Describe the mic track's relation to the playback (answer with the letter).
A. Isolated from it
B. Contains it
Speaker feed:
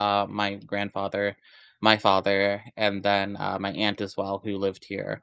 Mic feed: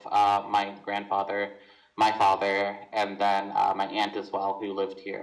B